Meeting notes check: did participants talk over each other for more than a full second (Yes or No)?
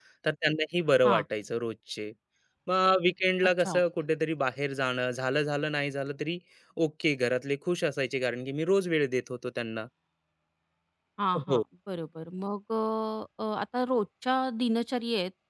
No